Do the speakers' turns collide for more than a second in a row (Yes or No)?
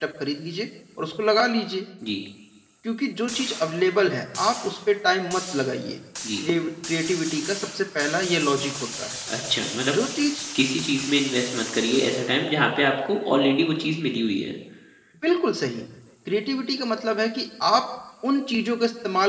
No